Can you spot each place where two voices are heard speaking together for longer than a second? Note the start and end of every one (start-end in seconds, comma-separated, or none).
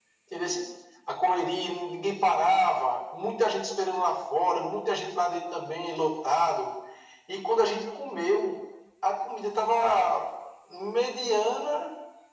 none